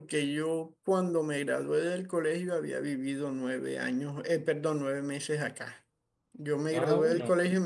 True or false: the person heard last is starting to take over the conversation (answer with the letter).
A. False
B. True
A